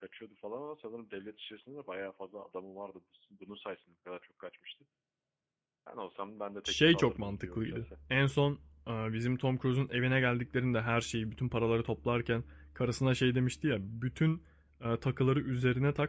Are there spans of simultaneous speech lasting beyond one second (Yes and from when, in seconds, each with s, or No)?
Yes, from 6.6 s